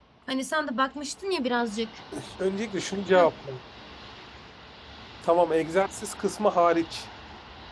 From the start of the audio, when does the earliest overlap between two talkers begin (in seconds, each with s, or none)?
none